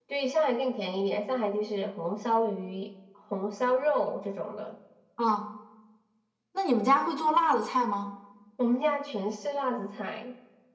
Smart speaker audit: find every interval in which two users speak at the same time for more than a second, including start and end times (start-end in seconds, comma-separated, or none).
none